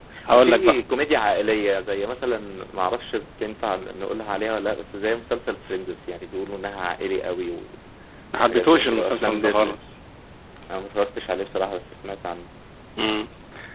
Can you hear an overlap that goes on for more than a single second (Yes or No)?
Yes